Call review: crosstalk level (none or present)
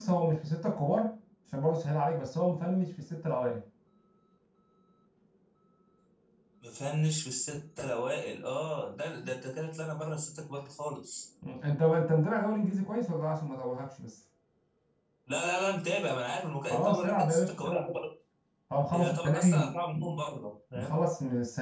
present